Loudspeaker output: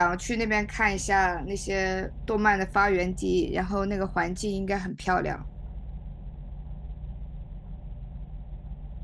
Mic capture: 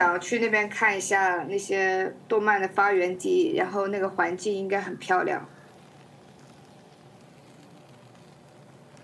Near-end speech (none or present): none